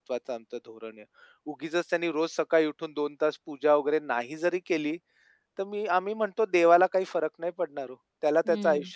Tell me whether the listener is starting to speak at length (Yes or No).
No